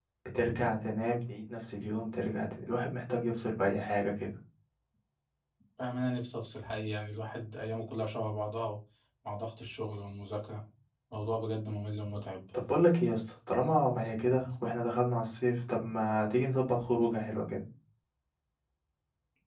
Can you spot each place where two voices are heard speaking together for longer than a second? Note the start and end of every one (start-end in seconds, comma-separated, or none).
none